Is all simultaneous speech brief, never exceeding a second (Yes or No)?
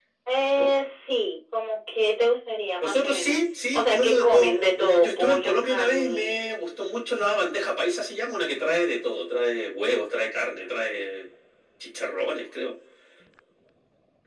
No